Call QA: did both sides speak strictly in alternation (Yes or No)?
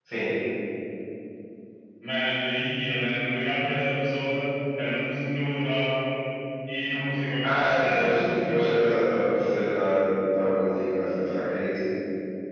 No